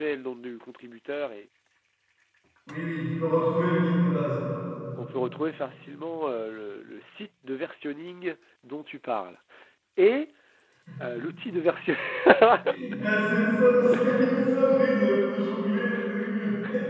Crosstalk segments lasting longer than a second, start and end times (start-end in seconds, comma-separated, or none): none